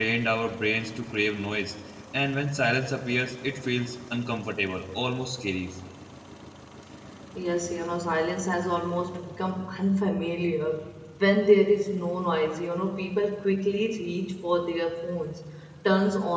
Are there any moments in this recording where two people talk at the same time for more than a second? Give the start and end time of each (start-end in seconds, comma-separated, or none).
none